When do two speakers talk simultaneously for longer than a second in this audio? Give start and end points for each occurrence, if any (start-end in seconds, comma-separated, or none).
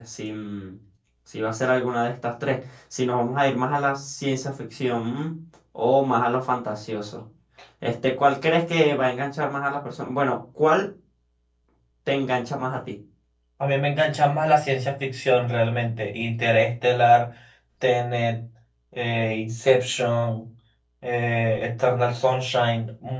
none